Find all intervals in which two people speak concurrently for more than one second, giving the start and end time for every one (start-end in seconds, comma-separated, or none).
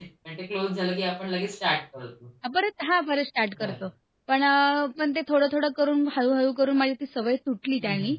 none